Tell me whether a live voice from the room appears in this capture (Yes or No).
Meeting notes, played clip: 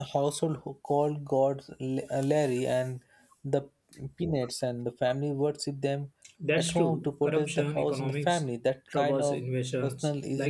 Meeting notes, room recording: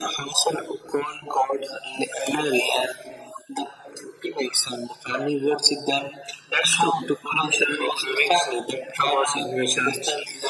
No